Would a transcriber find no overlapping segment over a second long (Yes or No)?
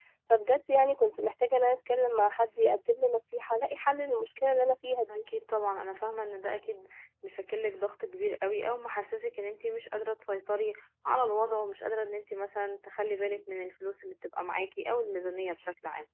Yes